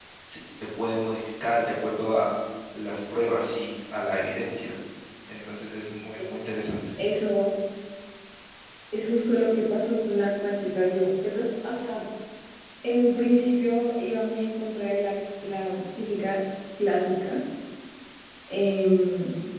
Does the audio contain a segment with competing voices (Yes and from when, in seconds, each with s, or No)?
No